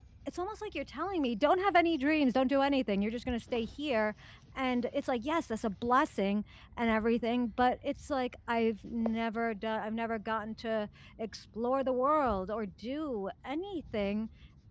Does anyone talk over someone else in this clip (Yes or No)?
No